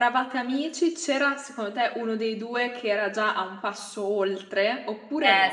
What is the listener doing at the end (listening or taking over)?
taking over